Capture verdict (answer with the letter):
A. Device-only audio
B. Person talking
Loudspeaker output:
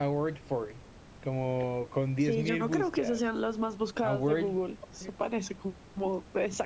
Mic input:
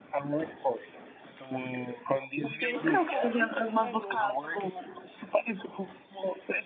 B